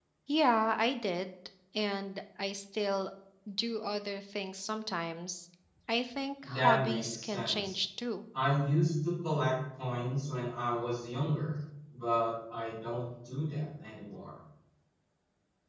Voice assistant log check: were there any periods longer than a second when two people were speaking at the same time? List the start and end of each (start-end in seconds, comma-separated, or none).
6.4-7.8